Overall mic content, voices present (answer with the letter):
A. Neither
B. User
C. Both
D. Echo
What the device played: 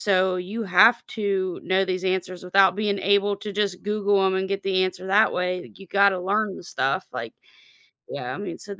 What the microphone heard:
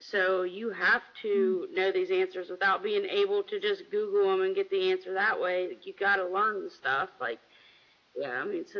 C